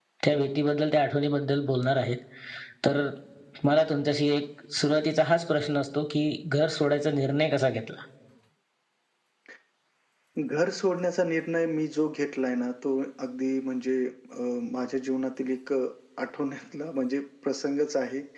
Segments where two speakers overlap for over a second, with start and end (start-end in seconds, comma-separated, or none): none